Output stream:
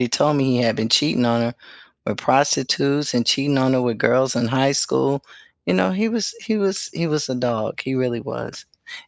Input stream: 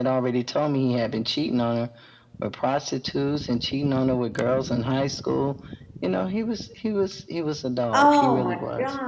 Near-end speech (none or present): present